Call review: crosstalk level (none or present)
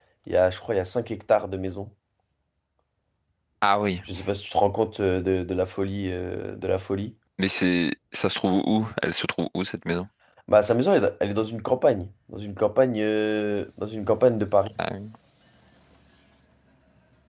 none